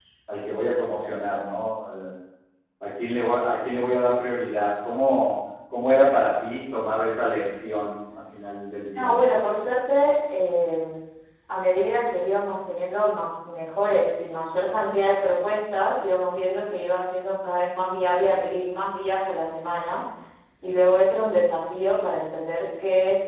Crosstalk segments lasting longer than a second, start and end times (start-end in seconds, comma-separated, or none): none